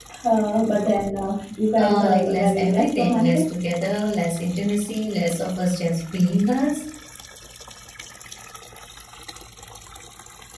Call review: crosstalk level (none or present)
present